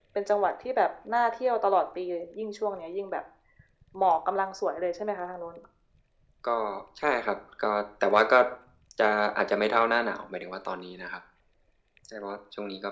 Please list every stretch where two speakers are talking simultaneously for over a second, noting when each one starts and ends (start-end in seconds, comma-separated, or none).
none